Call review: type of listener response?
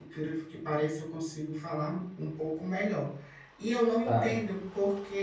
listening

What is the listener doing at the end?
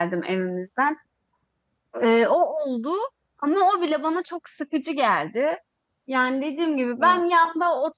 listening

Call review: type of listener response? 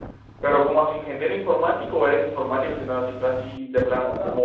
taking over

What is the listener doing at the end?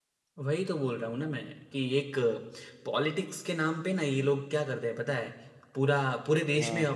listening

